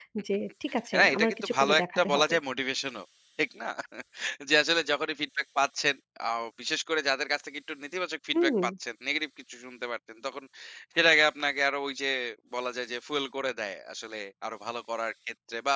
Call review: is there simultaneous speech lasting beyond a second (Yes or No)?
Yes